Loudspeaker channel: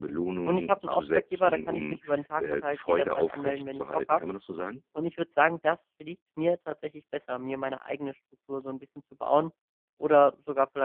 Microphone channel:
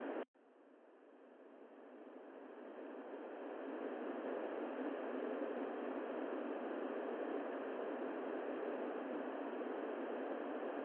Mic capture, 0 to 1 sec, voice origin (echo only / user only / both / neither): neither